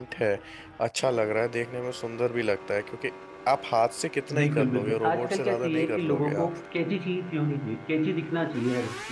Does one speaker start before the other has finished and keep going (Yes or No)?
Yes